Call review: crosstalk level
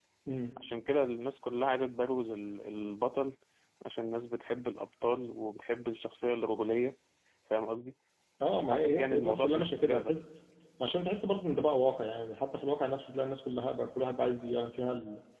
present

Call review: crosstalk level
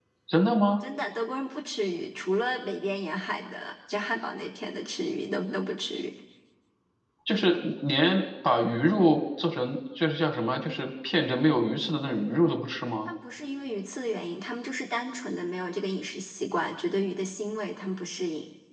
none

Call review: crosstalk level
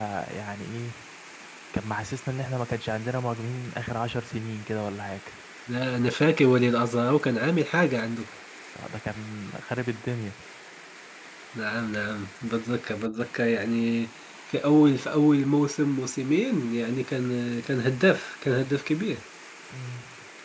none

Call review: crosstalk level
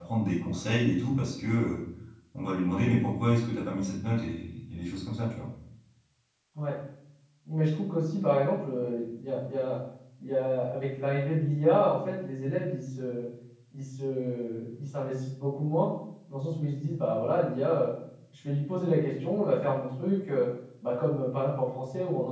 none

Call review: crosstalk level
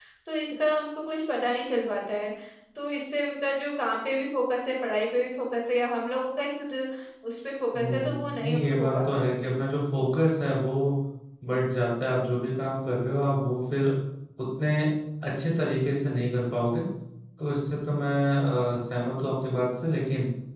present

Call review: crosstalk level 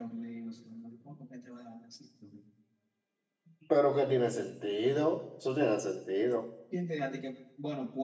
none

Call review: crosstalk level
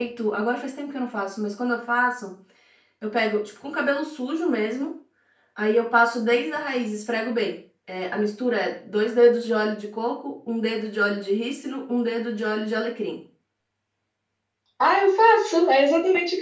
none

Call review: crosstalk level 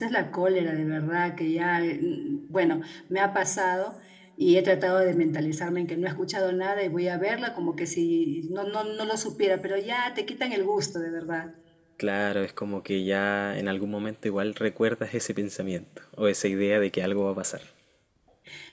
none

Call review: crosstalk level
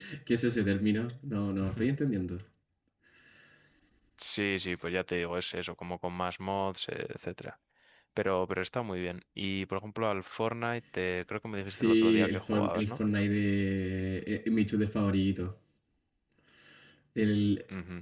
present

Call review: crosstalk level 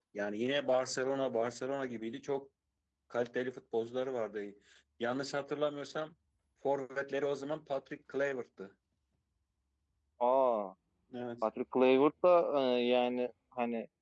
none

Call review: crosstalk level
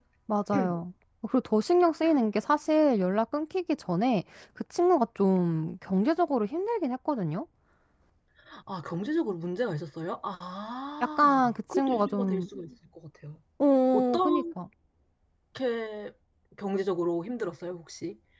present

